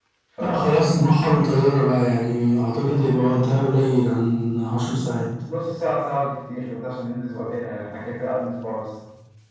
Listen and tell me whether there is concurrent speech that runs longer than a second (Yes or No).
No